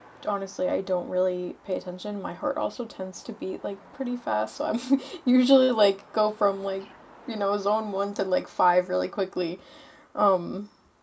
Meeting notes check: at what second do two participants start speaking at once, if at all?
none

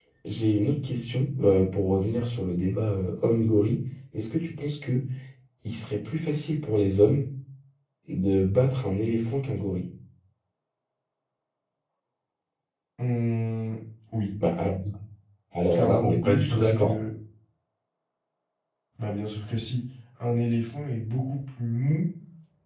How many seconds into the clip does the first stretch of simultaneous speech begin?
15.7 s

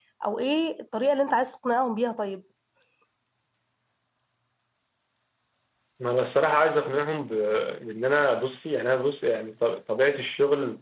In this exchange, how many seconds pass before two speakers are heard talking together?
none

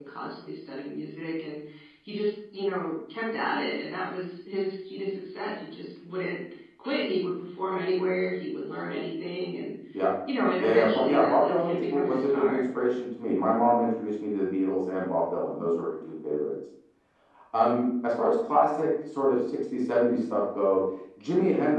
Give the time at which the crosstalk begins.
10.6 s

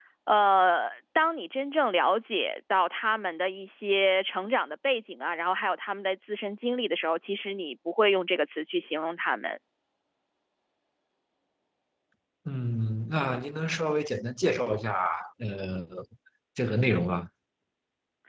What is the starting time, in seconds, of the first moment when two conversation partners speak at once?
none

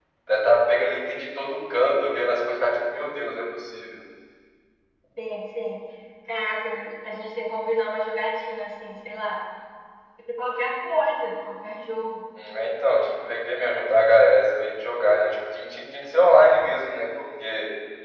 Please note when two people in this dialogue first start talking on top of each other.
none

